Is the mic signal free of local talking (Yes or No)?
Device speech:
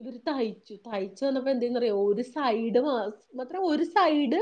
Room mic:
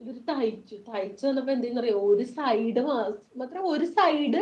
Yes